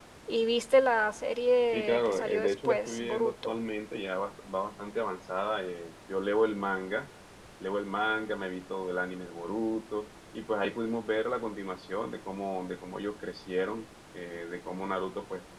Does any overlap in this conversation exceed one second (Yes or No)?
Yes